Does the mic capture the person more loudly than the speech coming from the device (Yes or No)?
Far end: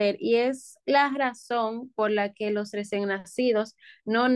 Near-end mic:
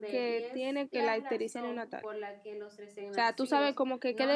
Yes